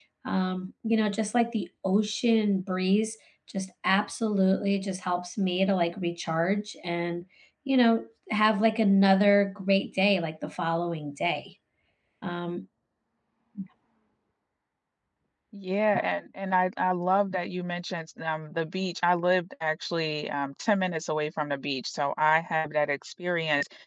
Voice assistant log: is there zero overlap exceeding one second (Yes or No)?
Yes